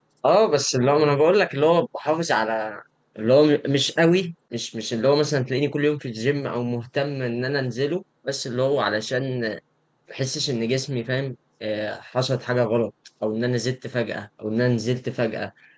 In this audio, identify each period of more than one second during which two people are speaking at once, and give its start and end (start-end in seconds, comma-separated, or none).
none